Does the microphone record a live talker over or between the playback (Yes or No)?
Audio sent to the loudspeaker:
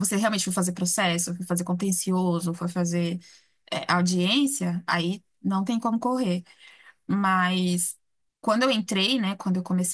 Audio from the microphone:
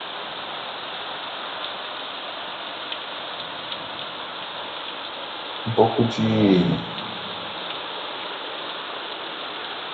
Yes